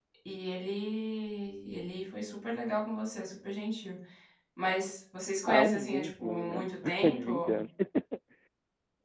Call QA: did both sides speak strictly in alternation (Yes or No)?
No